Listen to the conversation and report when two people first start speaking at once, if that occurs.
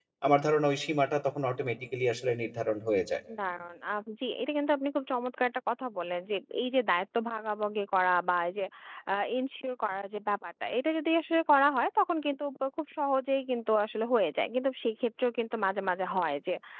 none

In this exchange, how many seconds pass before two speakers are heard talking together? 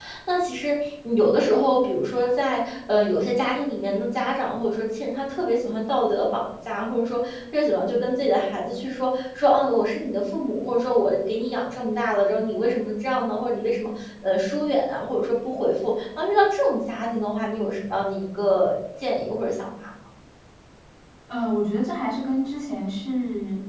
none

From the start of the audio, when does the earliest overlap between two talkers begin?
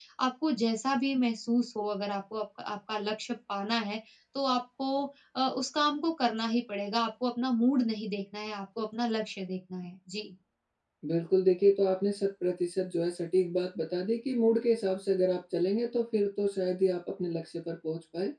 none

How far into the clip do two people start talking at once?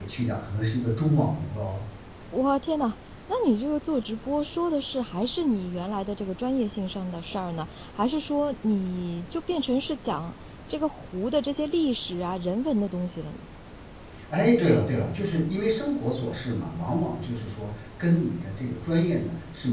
none

